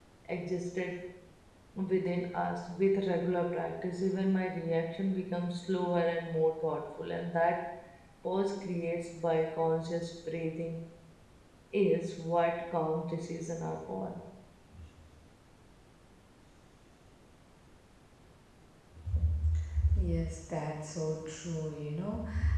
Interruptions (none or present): none